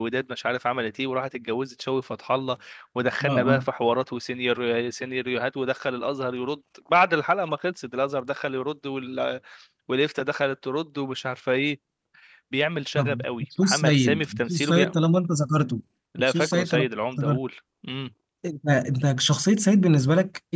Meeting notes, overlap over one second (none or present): present